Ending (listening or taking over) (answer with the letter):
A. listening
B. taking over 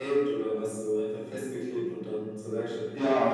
B